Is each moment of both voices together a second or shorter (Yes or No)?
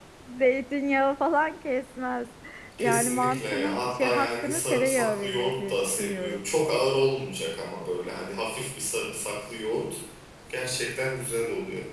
No